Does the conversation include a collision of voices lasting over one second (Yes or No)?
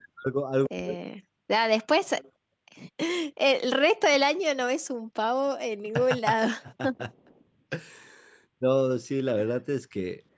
No